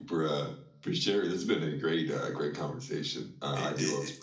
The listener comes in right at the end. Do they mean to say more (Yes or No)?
Yes